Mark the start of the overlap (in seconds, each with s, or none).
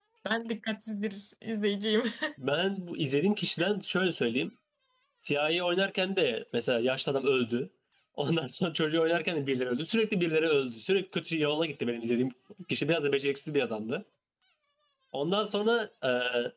none